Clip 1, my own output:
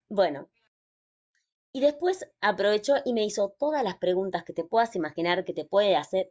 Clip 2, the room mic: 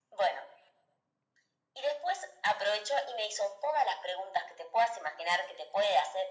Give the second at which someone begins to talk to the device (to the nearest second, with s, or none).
none